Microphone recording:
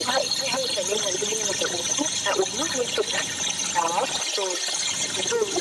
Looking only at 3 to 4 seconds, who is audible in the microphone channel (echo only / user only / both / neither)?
echo only